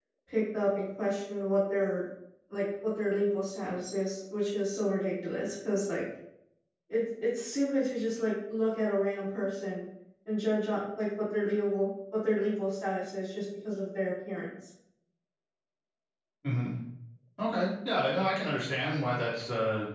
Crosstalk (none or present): none